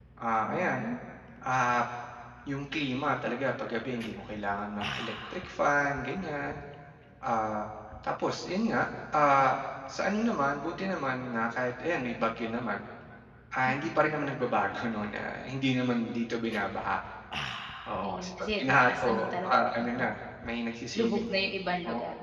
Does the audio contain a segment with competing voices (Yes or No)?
Yes